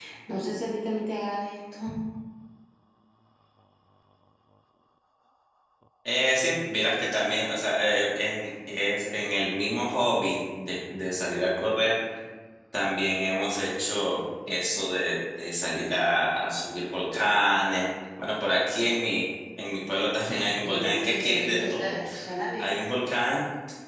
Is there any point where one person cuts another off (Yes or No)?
Yes